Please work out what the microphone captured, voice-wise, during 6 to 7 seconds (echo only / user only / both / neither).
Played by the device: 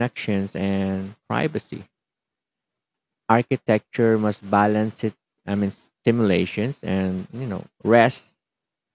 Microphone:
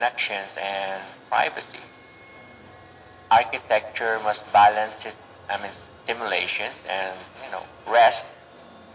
echo only